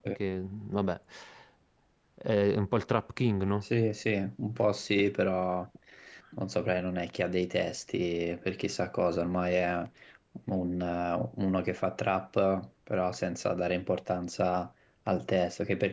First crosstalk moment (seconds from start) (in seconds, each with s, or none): none